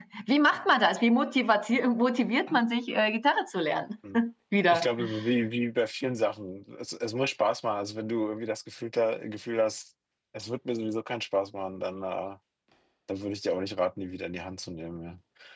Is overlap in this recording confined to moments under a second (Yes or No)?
Yes